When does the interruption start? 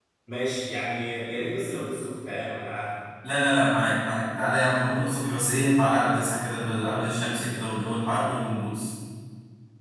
none

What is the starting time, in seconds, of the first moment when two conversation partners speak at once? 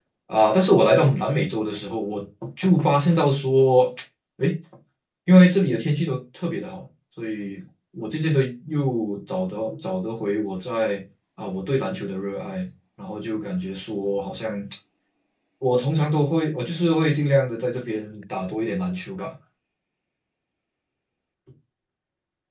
none

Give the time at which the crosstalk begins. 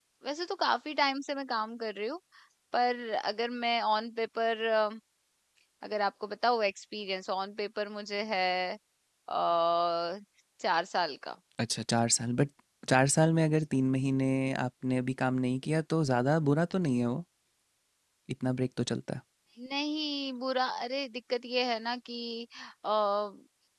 none

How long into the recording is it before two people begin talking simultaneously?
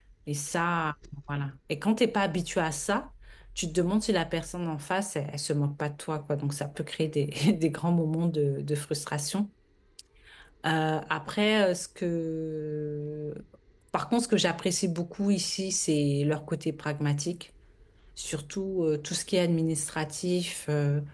none

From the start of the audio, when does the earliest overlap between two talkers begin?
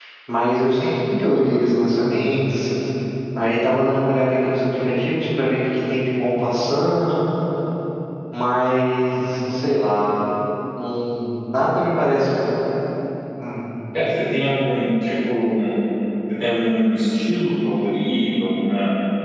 none

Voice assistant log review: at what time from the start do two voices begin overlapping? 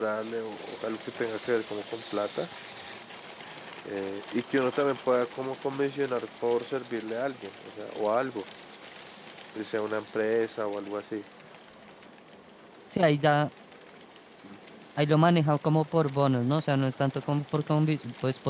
none

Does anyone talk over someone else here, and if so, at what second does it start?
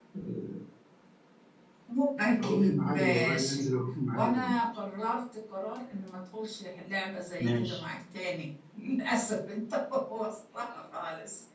2.4 s

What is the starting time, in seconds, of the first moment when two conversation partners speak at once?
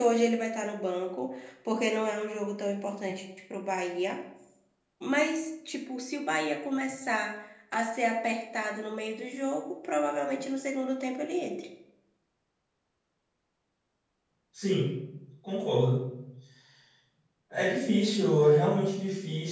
none

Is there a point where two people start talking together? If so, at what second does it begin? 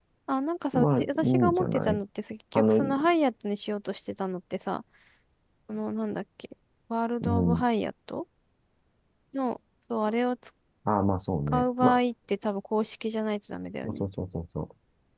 0.7 s

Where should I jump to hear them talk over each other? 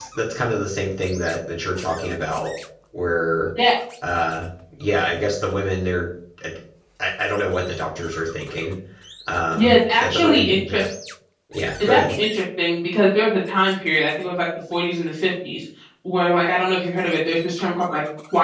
9.5 s

